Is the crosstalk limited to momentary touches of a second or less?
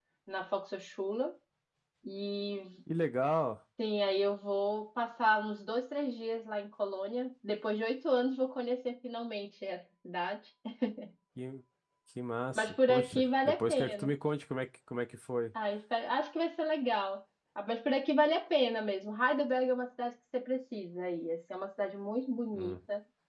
No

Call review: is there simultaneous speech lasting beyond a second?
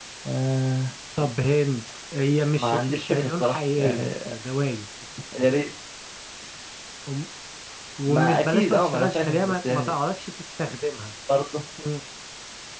Yes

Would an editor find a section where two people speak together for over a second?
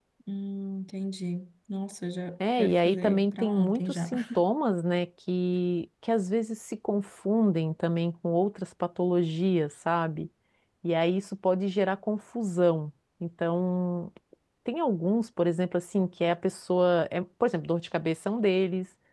Yes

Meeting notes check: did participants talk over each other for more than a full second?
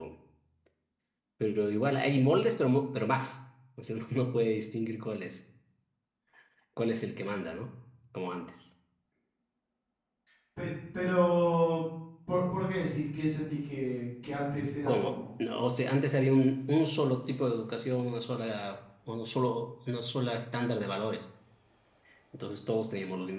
No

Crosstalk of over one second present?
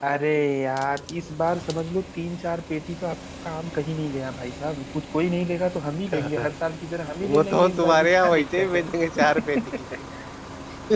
Yes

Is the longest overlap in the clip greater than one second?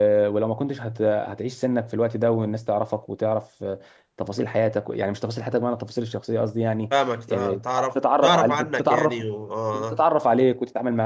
Yes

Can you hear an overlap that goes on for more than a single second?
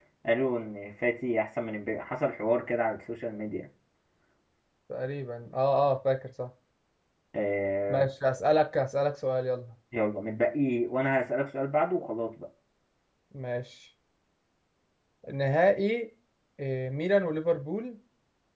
No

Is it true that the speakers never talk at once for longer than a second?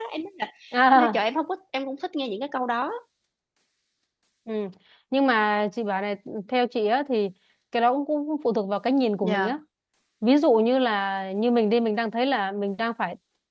Yes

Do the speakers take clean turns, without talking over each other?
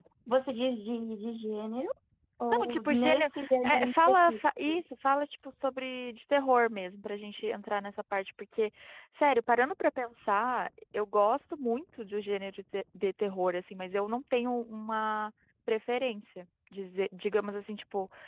No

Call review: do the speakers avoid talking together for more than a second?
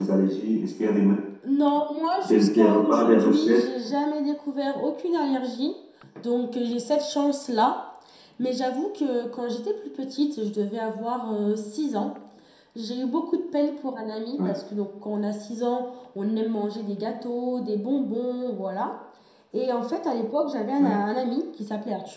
No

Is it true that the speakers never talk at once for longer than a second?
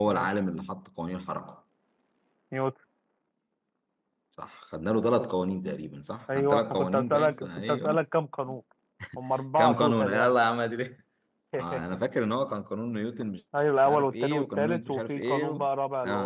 No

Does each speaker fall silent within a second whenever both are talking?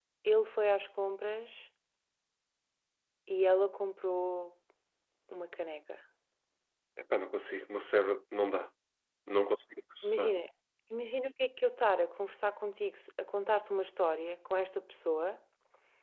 Yes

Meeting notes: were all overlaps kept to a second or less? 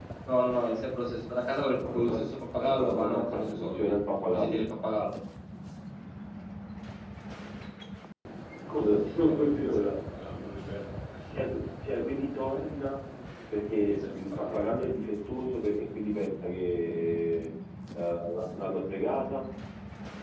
No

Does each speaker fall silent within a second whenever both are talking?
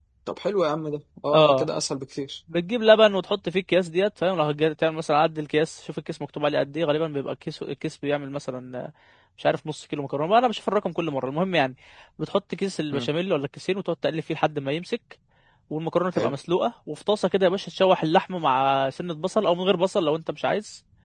Yes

